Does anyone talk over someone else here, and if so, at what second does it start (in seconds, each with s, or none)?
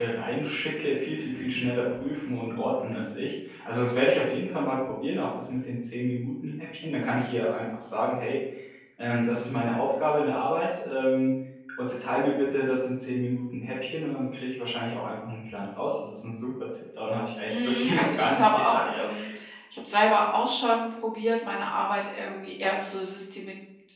17.5 s